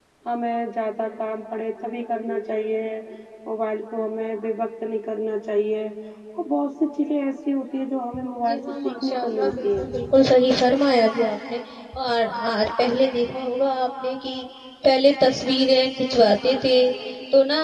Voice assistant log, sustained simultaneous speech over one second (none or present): present